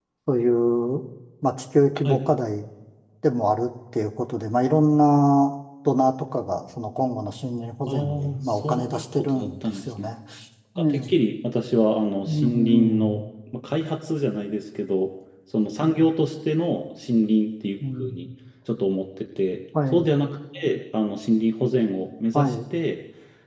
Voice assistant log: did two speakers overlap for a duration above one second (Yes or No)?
Yes